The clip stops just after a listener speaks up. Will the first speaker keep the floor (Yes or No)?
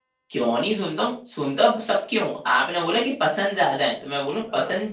Yes